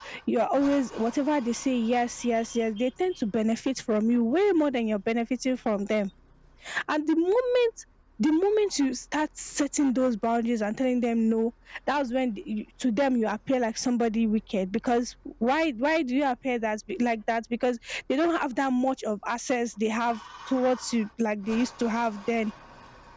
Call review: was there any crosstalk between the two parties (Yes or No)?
No